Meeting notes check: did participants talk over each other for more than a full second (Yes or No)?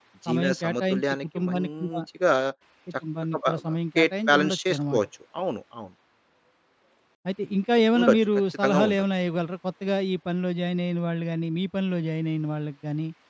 Yes